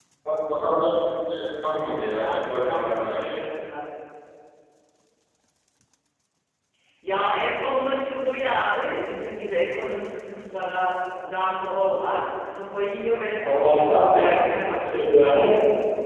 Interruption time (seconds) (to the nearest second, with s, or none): 2 s